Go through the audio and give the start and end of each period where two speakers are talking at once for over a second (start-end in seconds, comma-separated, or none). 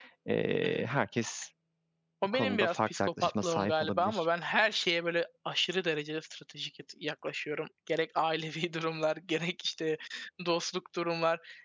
2.3-4.2